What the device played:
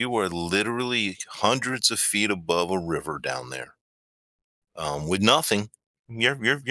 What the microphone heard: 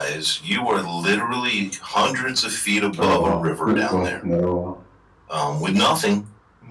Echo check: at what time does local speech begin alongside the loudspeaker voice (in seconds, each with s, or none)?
3.0 s